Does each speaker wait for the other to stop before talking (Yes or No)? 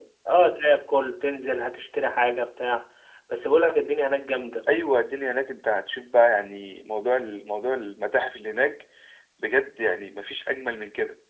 Yes